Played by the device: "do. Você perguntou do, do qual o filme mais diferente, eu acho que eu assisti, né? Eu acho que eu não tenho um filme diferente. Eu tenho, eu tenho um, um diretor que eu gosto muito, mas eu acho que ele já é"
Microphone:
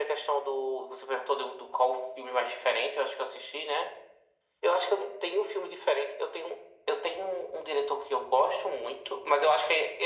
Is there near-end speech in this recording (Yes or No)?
No